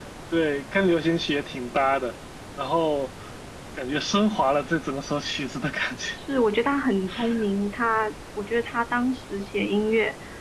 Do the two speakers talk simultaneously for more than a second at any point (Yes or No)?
No